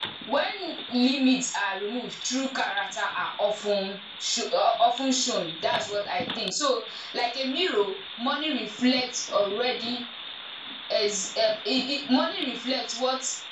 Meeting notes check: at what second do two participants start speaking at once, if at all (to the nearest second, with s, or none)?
none